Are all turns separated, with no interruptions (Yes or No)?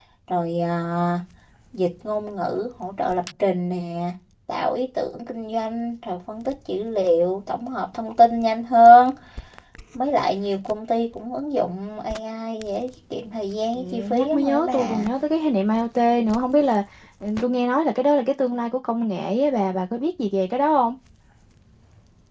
No